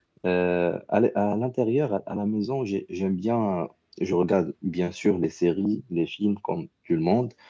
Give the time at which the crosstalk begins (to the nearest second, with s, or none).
none